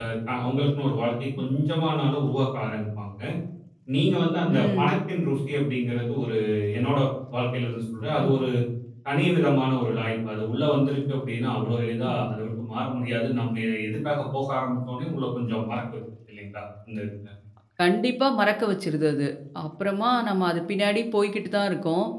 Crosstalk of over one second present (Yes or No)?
No